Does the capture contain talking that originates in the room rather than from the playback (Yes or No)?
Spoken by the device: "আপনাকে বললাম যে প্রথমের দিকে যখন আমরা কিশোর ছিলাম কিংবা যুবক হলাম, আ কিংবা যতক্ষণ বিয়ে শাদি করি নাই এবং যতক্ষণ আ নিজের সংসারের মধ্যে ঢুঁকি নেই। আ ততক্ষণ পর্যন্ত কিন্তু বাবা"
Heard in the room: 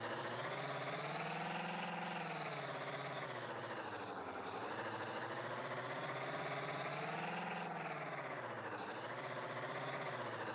No